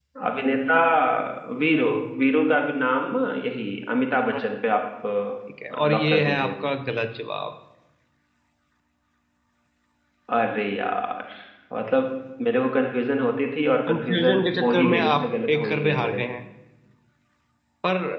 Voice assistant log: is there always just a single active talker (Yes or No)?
No